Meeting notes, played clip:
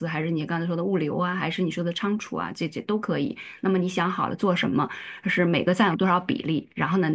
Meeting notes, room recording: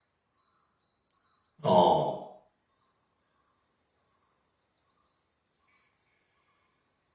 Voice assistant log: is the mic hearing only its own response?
No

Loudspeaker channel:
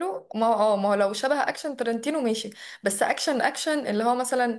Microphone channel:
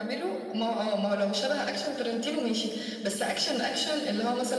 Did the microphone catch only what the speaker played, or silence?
Yes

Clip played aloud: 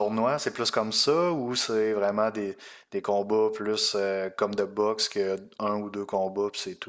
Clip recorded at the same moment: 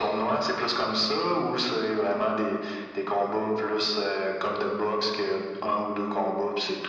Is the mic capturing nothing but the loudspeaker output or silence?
Yes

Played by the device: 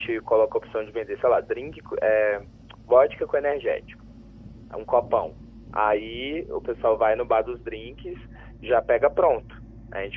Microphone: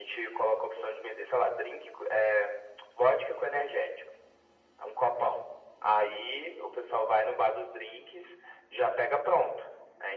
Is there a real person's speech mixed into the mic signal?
No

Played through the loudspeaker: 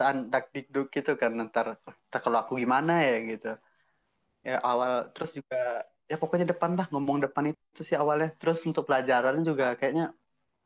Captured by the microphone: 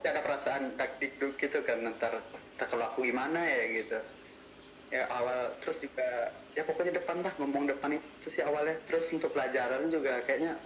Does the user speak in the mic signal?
No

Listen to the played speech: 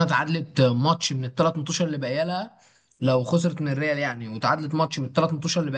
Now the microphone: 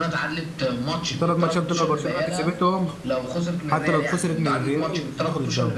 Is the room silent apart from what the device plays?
No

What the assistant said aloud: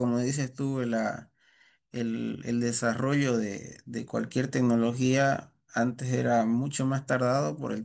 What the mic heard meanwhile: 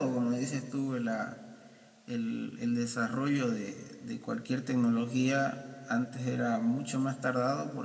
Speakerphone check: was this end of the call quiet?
Yes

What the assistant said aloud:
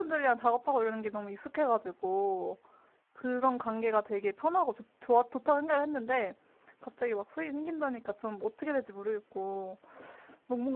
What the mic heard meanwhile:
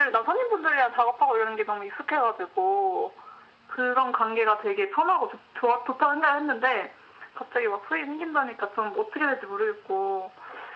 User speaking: No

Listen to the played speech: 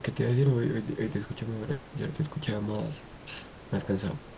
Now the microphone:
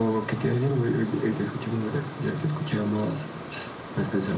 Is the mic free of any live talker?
Yes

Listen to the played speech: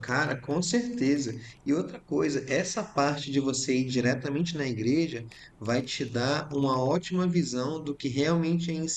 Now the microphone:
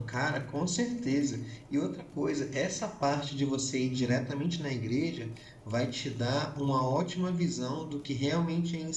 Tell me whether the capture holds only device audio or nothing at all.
Yes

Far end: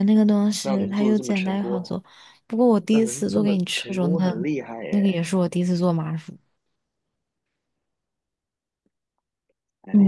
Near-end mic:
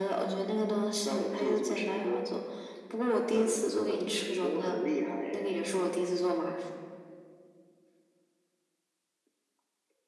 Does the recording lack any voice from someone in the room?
Yes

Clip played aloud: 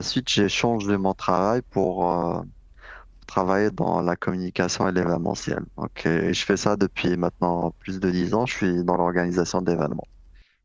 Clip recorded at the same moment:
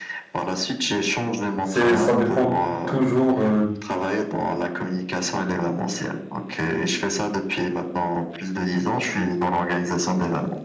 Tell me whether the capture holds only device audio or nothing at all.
No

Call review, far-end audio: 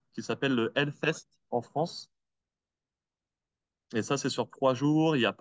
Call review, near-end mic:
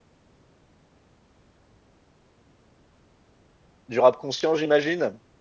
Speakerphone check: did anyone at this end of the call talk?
Yes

